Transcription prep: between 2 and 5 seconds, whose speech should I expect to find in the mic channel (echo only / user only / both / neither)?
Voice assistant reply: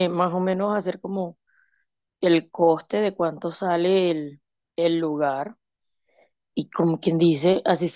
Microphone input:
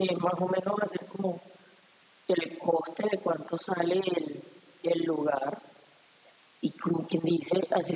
echo only